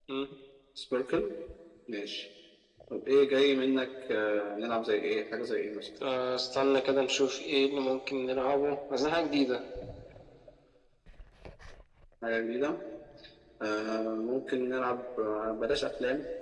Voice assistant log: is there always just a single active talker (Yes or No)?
Yes